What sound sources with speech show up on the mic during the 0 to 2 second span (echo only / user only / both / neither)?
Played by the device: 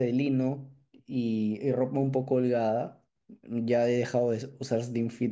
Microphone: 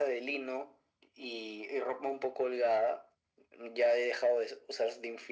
echo only